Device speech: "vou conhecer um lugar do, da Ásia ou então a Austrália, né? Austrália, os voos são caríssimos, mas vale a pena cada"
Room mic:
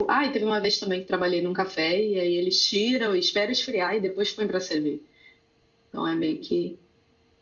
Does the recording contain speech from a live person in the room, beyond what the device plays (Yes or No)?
Yes